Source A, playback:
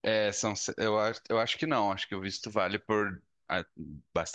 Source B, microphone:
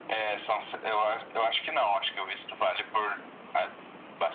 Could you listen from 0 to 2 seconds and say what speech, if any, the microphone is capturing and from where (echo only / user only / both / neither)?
echo only